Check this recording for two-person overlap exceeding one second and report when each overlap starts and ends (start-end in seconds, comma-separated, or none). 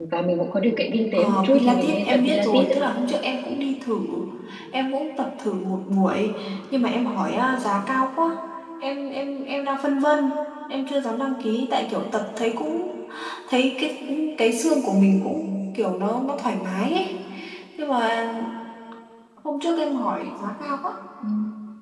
1.1-2.7